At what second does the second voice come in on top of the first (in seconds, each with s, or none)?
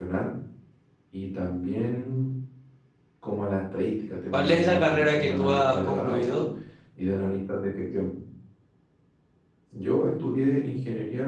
4.3 s